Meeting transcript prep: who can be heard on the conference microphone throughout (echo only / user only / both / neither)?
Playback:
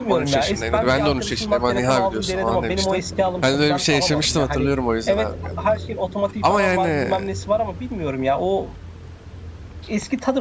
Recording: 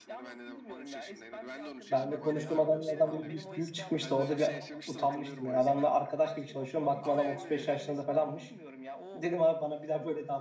both